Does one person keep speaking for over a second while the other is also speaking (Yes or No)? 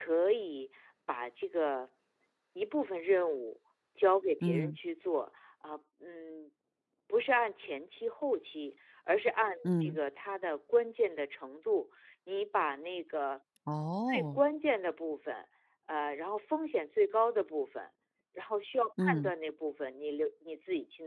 No